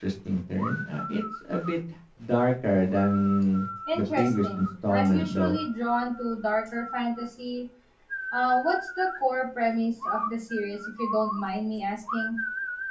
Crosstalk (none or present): present